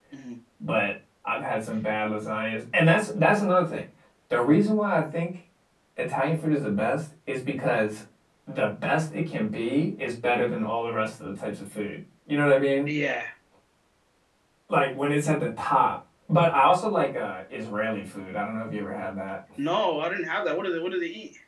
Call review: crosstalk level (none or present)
none